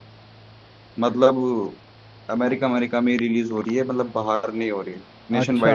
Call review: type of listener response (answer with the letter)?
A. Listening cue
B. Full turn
B